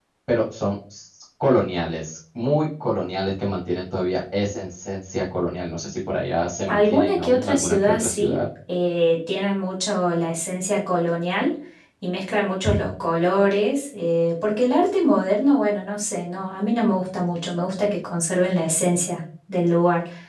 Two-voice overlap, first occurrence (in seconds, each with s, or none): 6.7 s